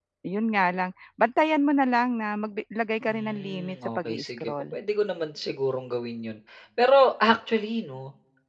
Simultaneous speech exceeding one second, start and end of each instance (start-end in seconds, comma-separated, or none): 3.1-4.8